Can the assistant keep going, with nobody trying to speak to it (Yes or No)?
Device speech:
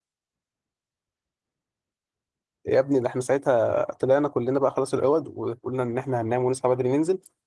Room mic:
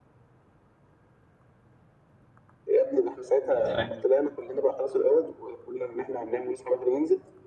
No